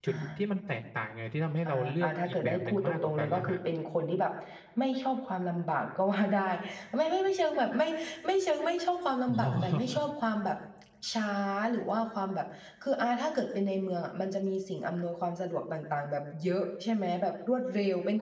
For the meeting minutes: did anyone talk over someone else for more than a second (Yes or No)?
Yes